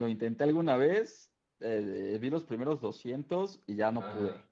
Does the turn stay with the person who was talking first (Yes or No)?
No